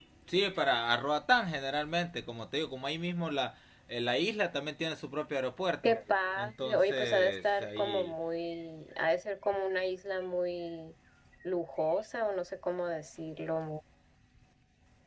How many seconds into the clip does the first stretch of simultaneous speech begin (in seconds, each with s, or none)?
6.4 s